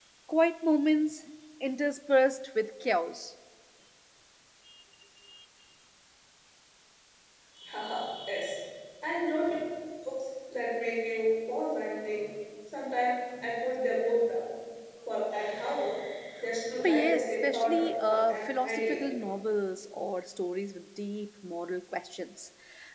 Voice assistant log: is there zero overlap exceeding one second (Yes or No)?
No